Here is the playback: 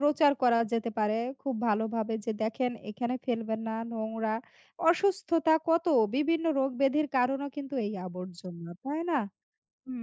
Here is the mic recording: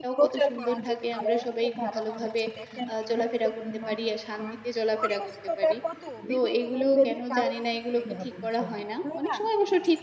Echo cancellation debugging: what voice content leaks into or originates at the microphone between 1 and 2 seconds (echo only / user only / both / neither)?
both